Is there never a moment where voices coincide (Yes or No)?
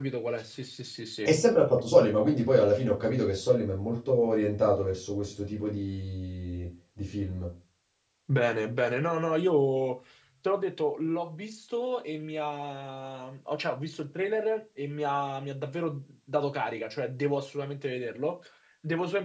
Yes